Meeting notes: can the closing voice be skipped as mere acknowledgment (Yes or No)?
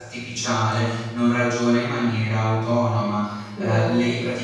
Yes